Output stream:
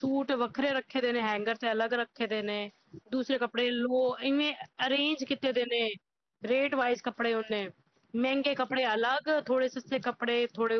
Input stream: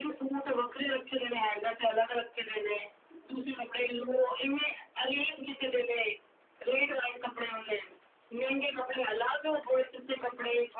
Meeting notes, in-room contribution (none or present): none